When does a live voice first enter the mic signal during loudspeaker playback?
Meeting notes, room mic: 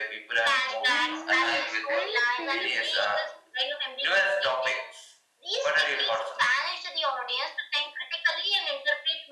0.9 s

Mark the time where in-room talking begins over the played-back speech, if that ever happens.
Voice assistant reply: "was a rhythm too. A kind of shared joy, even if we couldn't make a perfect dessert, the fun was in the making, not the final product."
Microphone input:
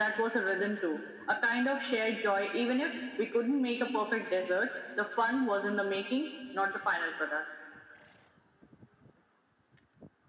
none

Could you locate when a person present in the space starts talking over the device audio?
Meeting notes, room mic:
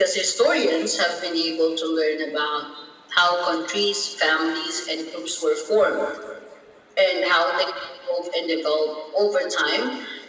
none

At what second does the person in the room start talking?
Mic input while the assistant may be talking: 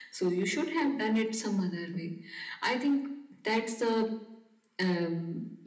none

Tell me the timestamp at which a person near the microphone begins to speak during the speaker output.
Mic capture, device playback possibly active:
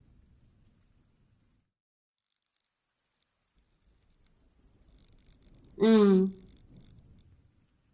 5.8 s

